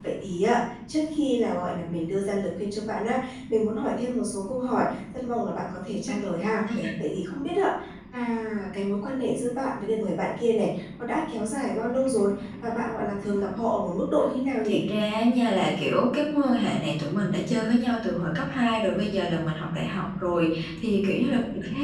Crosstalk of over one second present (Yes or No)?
No